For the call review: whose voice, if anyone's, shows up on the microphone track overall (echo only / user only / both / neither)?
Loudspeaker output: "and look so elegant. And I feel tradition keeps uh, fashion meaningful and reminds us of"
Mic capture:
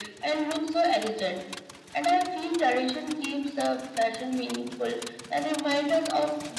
echo only